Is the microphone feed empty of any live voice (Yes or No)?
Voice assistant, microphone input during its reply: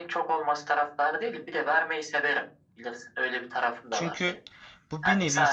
No